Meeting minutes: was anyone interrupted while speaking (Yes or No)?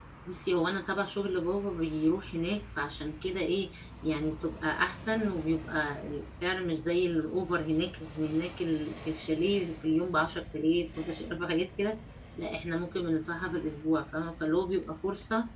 No